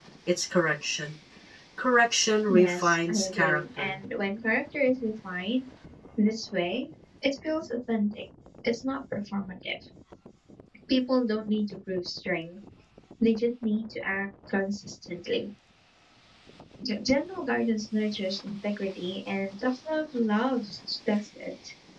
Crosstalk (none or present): present